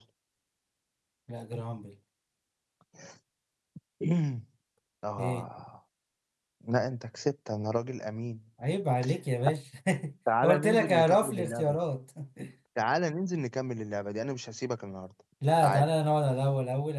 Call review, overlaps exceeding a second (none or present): present